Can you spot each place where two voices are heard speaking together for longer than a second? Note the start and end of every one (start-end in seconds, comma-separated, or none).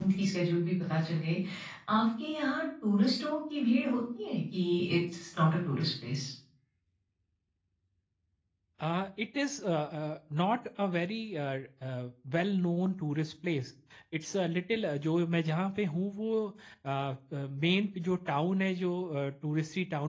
none